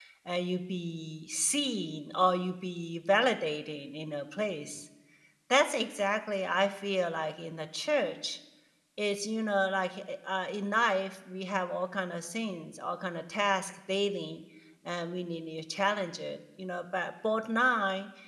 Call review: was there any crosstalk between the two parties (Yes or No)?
No